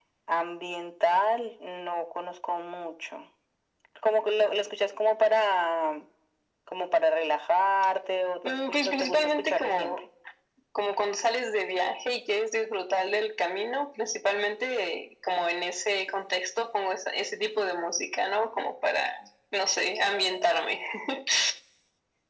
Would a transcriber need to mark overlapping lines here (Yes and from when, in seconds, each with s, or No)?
Yes, from 8.4 s